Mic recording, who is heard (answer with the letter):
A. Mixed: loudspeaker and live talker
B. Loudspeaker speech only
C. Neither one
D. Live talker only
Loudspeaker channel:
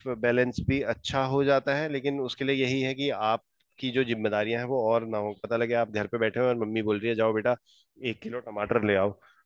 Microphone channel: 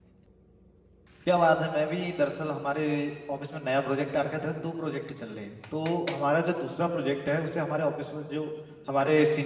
D